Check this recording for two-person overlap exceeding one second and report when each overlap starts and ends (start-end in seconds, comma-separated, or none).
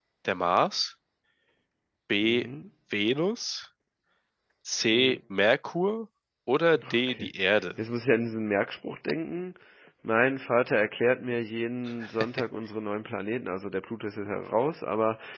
none